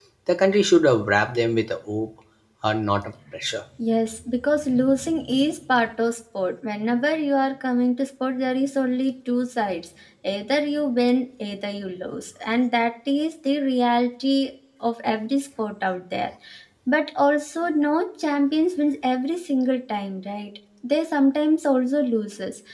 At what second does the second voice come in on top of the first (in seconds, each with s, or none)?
none